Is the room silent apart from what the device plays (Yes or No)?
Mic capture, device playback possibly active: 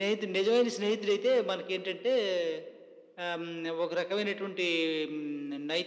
Yes